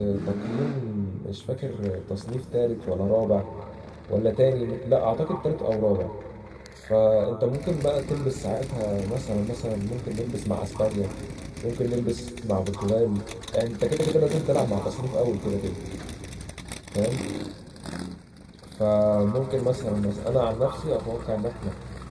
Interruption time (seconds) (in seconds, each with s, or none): none